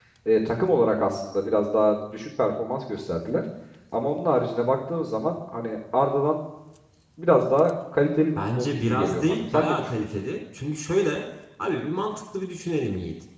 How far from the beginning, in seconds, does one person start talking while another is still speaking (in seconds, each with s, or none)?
8.4 s